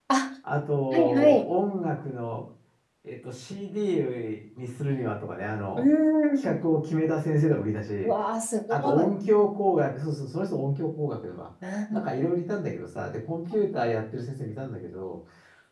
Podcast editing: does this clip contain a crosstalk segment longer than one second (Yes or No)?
No